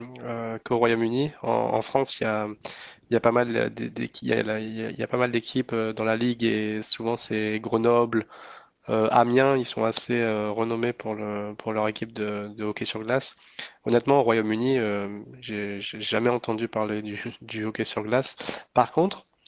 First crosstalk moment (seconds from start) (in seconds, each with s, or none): none